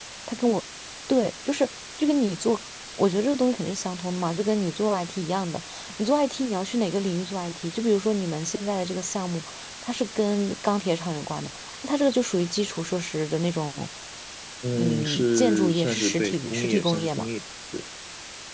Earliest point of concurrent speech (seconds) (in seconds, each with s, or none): 14.7 s